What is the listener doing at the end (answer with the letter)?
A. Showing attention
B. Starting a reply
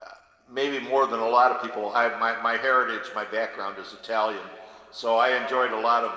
A